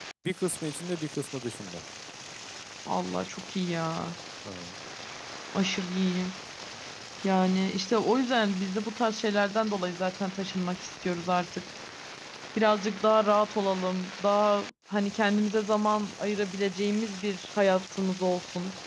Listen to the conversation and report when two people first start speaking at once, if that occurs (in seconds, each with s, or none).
none